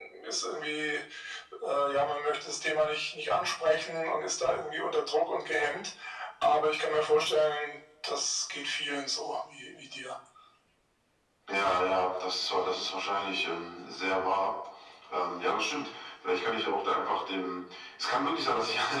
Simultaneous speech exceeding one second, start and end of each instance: none

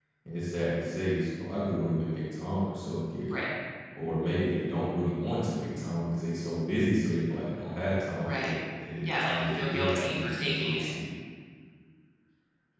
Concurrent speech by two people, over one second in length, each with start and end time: 9.0-10.9

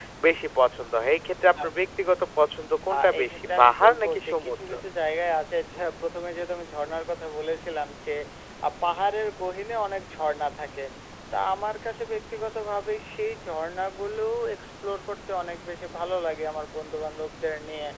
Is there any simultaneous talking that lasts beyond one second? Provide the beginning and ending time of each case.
2.9-4.6

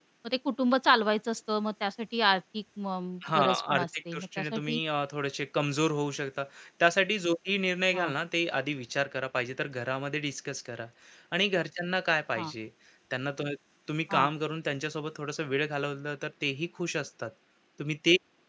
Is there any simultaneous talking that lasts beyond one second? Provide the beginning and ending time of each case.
3.4-4.8

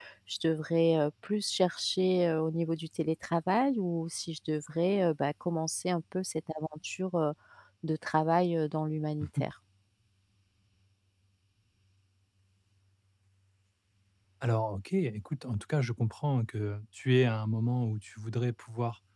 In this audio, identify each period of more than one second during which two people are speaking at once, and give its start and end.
none

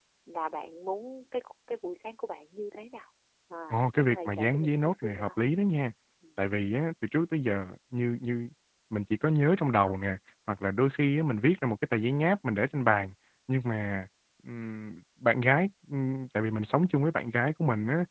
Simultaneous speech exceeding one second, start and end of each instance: 3.7-5.4

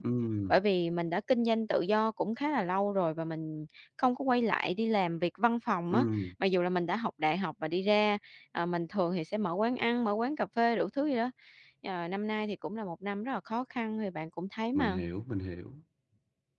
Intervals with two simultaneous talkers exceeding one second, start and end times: none

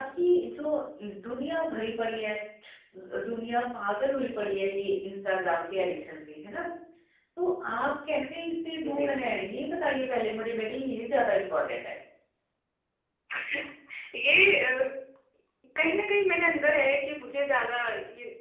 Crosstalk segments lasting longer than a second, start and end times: none

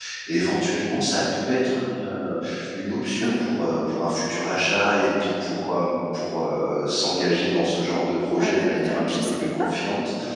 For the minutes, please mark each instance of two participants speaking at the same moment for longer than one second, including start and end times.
8.4-9.7

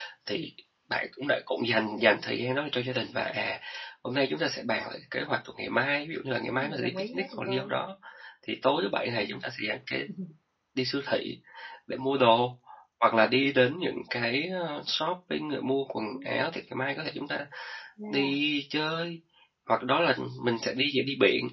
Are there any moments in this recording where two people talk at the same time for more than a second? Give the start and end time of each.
6.4-7.7

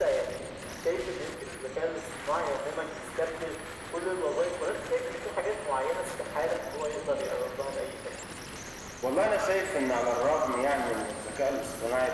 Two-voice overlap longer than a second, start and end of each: none

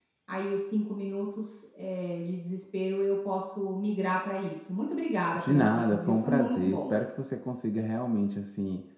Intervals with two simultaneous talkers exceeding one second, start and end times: 5.3-7.0

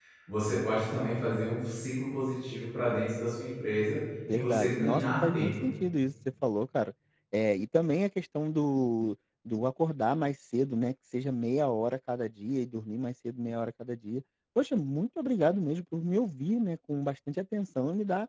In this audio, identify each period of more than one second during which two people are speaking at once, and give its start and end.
4.3-5.5

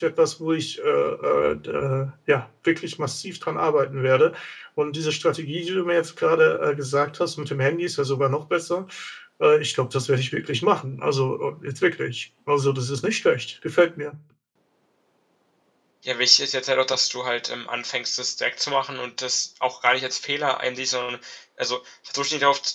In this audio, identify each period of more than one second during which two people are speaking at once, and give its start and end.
none

